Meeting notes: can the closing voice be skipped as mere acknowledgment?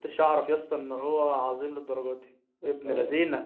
No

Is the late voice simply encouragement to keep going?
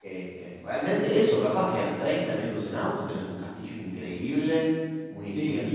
No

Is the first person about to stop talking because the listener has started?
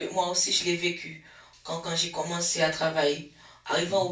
No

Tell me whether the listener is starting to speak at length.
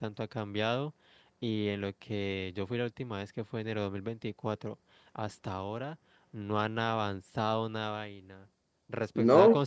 No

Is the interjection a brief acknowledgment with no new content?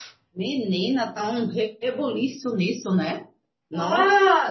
No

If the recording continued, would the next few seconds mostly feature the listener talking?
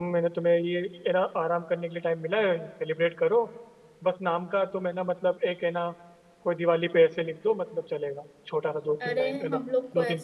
Yes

